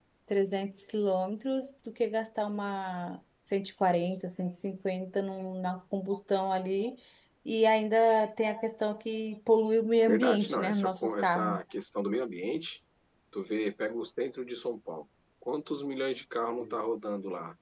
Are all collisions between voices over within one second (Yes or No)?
No